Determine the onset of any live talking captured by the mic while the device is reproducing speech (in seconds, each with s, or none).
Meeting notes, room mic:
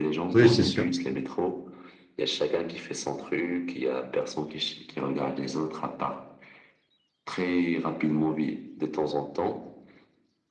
0.3 s